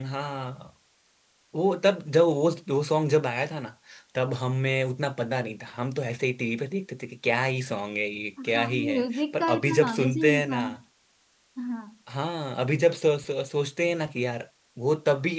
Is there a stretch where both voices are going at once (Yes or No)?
Yes